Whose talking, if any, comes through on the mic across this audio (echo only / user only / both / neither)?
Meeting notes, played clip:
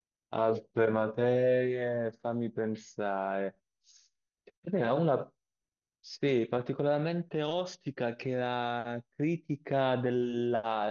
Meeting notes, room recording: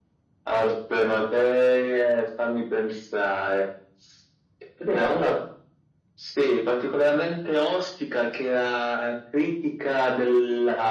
echo only